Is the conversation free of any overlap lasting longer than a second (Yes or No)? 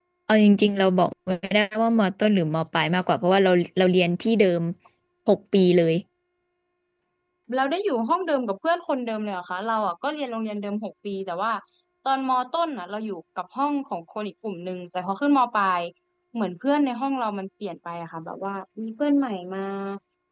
Yes